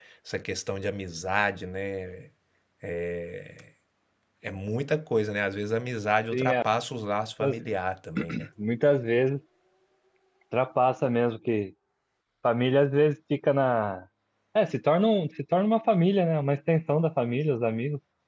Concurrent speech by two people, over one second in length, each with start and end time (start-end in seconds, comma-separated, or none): none